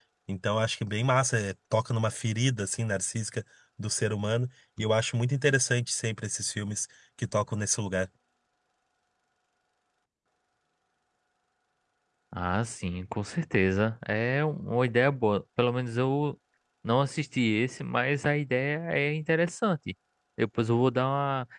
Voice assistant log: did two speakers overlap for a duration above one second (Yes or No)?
No